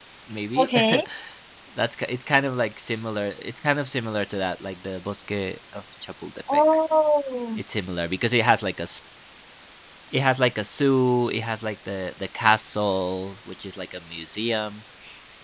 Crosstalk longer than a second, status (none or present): none